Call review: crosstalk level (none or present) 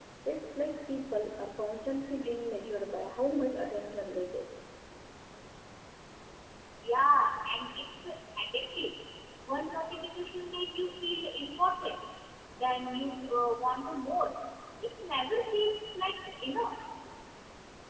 none